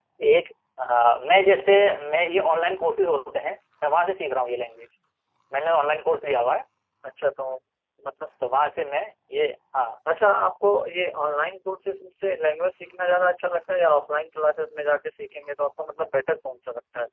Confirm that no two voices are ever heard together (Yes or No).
Yes